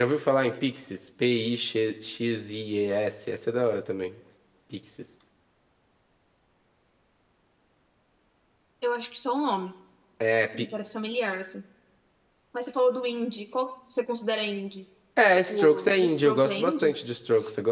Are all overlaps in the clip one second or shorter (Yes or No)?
No